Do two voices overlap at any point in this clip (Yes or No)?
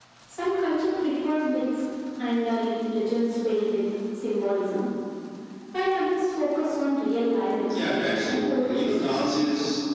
Yes